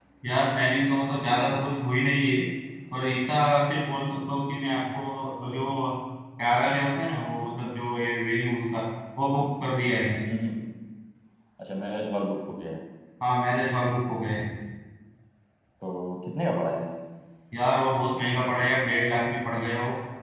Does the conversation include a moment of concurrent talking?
No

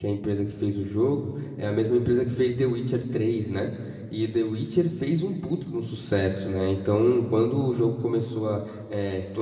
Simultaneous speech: No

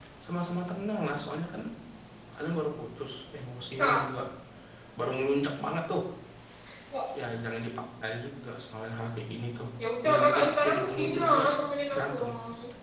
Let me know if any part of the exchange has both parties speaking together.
Yes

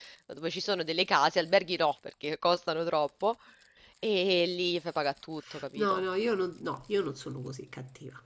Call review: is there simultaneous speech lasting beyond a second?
No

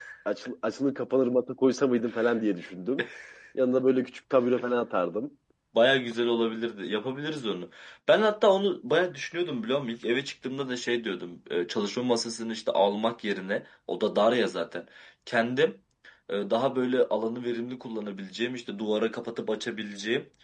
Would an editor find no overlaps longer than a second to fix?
Yes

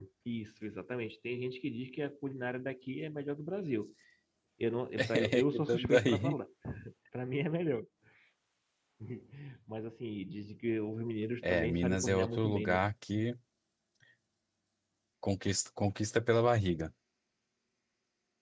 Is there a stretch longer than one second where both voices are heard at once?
Yes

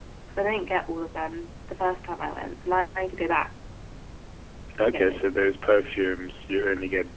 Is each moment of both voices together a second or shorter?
Yes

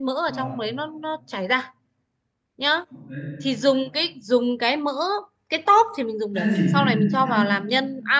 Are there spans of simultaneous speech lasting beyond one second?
Yes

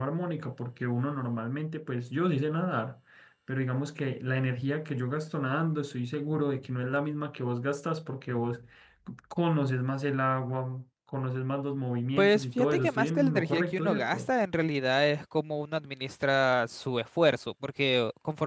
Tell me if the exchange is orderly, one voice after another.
No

